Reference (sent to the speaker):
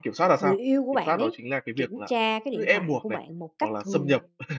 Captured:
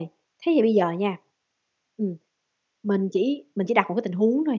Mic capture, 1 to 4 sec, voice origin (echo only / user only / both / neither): user only